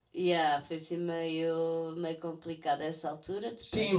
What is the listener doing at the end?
taking over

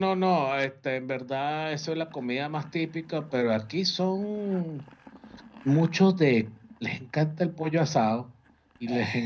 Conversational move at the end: listening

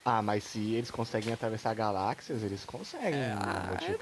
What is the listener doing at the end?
taking over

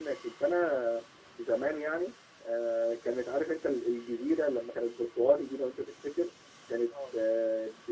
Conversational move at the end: listening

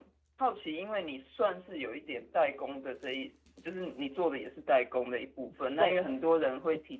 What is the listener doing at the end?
listening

